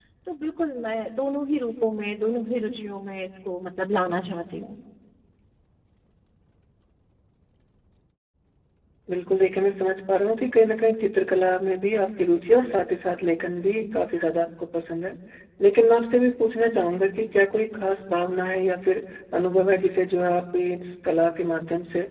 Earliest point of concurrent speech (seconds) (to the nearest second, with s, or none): none